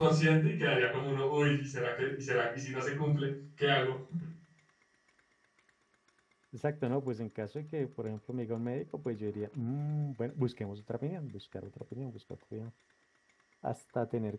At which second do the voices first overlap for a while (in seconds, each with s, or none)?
none